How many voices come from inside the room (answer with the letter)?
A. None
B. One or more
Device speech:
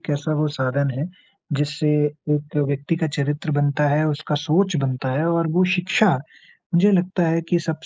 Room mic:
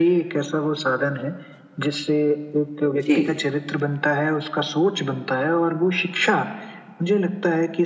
B